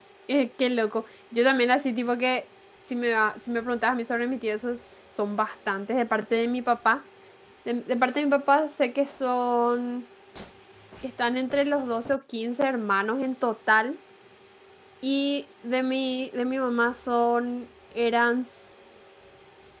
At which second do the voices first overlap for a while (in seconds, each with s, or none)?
none